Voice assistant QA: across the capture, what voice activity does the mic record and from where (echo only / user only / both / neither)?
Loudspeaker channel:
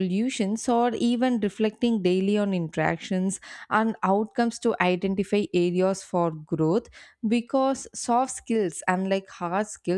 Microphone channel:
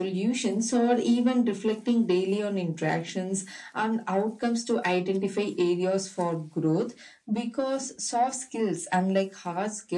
echo only